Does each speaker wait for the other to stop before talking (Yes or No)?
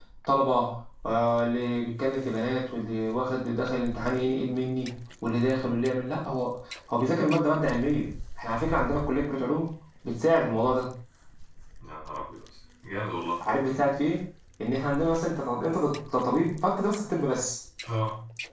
Yes